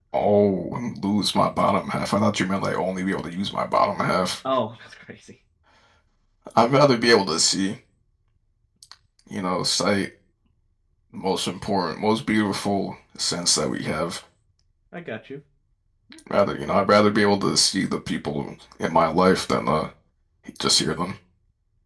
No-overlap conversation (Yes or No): Yes